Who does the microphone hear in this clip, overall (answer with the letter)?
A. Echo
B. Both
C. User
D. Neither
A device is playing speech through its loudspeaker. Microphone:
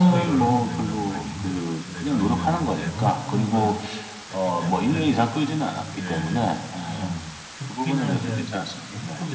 B